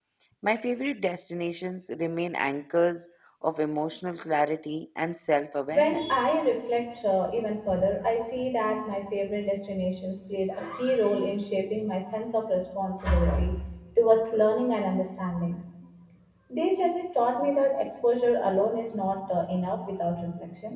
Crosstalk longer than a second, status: none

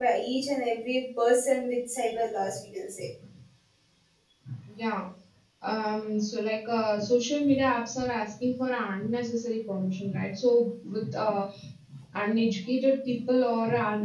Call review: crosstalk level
none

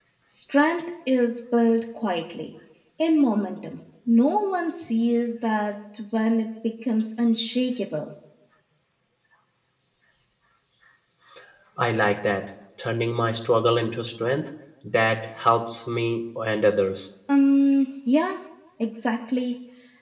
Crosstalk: none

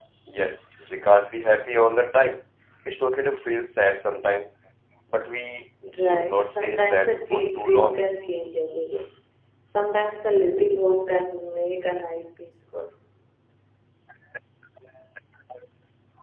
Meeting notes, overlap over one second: present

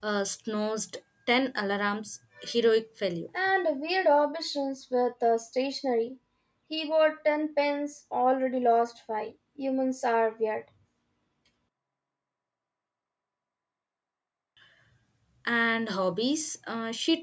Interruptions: none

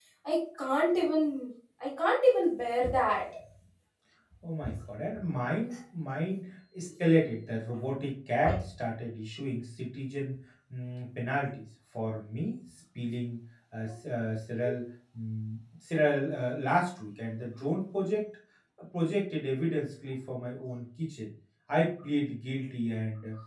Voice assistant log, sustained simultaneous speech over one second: none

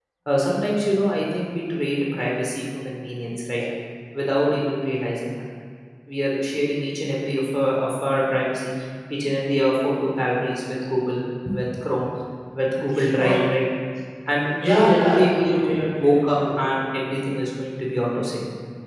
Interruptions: present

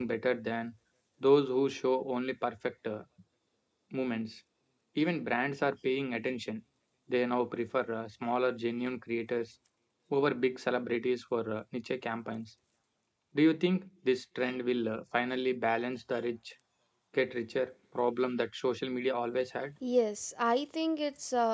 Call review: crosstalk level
none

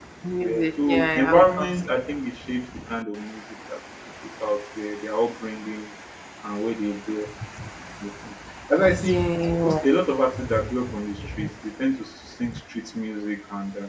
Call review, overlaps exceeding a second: present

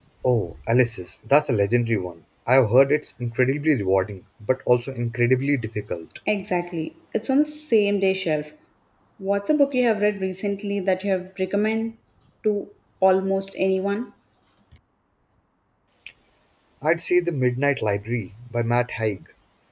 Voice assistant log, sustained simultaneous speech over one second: none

